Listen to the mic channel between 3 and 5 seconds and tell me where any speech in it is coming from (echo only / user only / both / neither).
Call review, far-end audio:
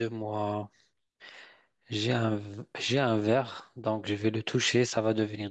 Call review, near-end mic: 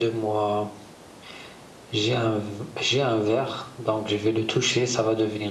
echo only